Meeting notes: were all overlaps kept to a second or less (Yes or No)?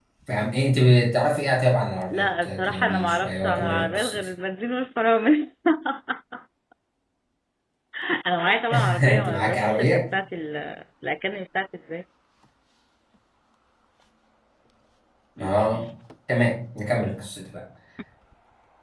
No